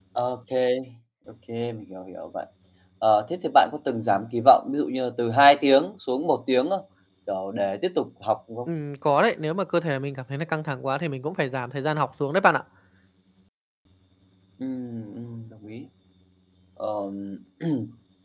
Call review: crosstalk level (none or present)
none